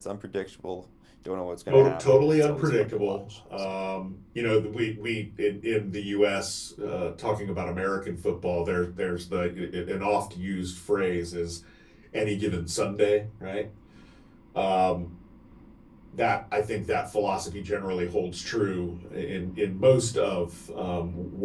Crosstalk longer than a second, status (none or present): present